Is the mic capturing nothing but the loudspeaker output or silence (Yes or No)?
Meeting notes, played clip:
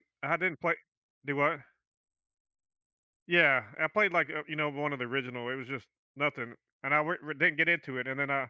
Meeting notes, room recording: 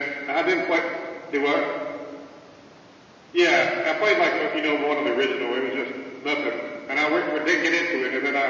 Yes